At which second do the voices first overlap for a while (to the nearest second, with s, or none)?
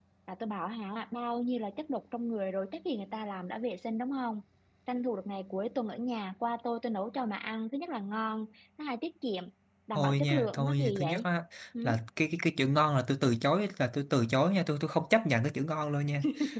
10 s